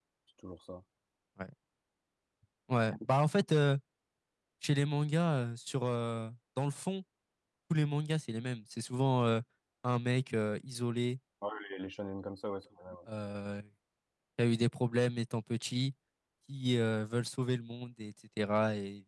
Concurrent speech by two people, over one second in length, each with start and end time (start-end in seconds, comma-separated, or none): none